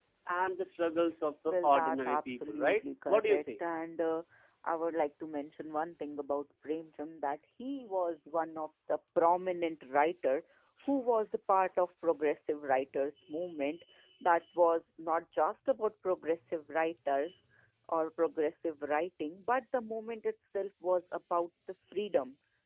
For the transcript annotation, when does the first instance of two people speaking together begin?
1.5 s

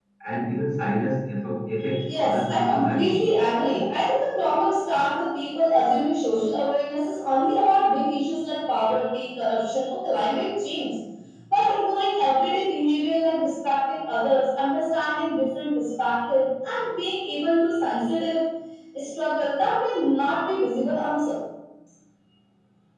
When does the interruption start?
2.0 s

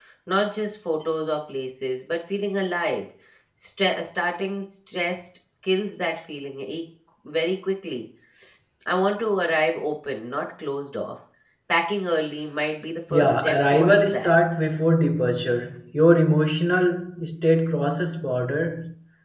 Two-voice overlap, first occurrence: 13.1 s

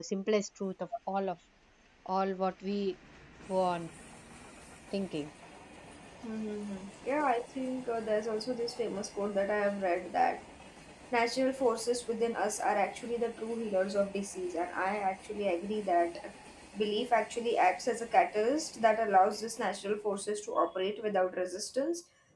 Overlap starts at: none

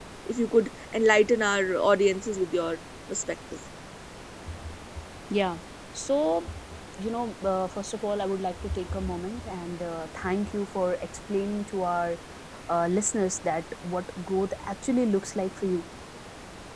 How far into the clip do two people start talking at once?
none

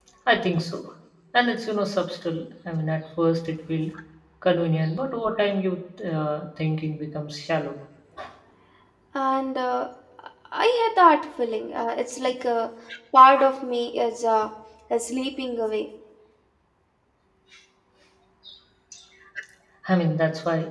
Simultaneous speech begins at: none

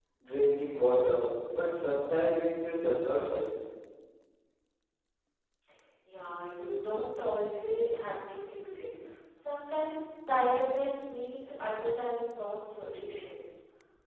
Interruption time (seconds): none

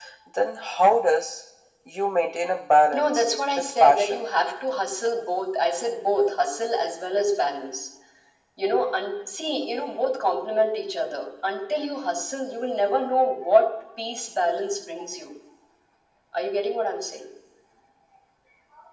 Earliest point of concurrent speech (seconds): 2.9 s

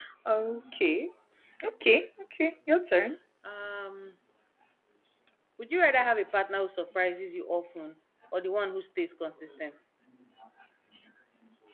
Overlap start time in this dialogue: none

